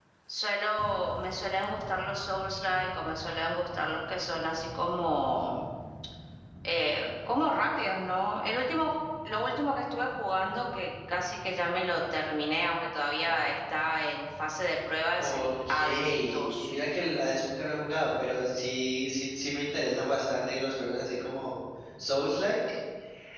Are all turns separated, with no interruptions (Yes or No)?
No